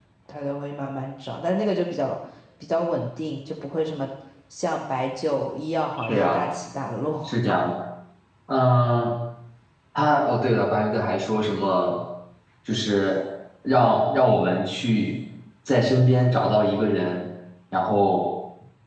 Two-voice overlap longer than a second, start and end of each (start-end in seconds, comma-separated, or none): none